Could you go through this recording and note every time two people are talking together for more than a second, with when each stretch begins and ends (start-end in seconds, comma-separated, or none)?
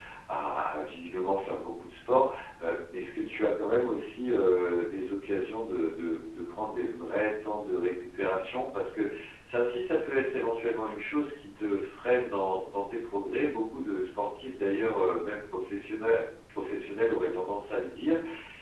none